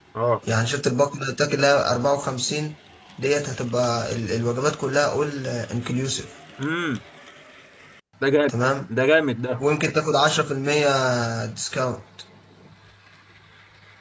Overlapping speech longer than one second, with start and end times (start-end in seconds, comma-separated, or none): none